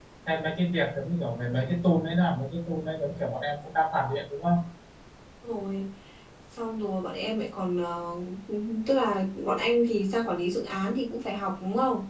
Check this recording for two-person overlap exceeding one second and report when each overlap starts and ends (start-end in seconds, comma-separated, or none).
none